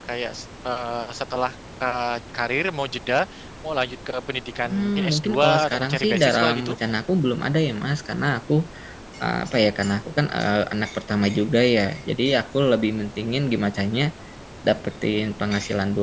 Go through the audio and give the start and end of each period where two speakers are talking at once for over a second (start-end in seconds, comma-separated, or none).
4.6-6.7